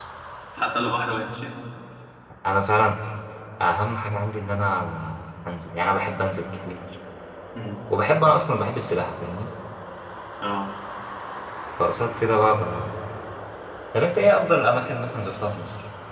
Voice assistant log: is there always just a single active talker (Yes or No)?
Yes